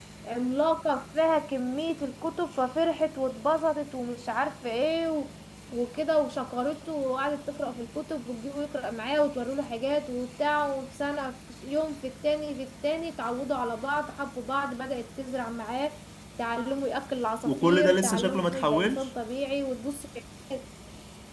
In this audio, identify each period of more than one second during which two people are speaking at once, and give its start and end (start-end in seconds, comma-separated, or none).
17.4-19.1